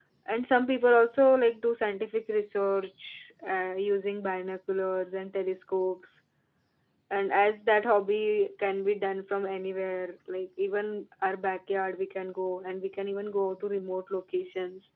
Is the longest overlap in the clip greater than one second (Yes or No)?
No